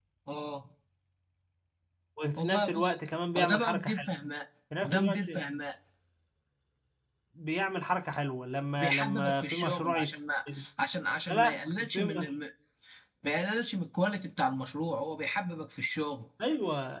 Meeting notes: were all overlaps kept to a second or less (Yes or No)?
No